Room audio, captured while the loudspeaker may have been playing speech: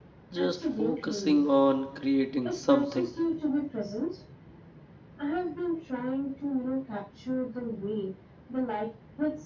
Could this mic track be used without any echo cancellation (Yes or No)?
No